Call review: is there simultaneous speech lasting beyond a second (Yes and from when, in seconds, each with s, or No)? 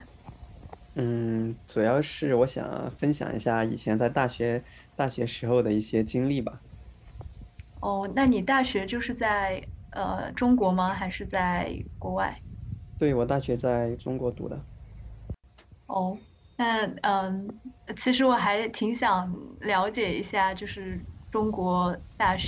No